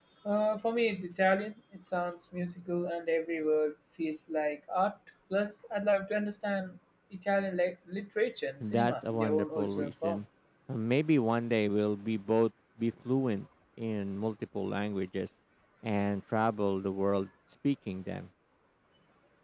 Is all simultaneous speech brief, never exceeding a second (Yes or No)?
No